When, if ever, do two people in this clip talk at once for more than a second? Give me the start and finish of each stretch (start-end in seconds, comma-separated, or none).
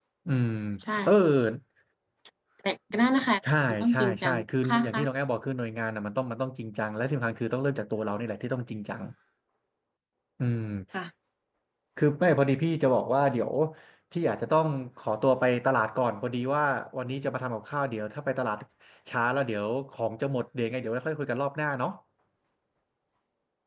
3.7-5.1